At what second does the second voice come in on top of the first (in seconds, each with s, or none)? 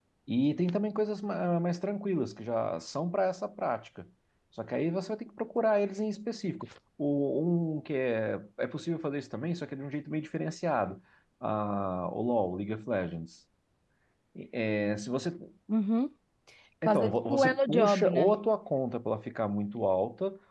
16.8 s